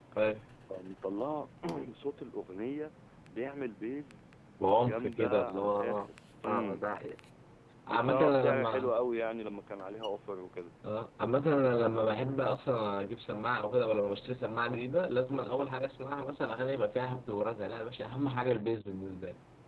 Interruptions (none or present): present